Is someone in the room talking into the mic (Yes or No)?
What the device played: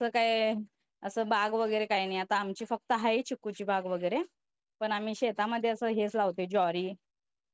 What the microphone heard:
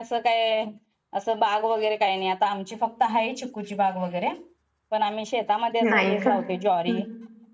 Yes